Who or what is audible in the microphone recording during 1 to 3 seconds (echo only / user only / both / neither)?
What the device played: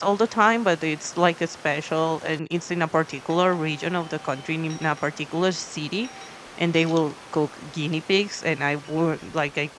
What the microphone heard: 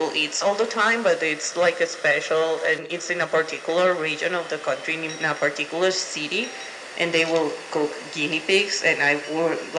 echo only